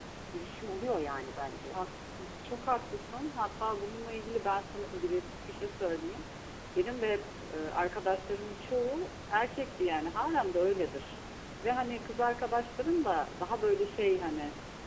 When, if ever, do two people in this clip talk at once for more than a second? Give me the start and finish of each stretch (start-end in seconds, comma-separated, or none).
none